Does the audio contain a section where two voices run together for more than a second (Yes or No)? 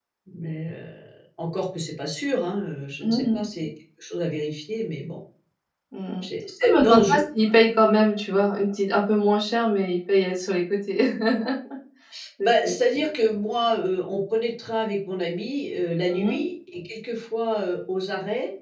No